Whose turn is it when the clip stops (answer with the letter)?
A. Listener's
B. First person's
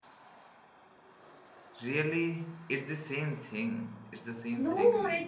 A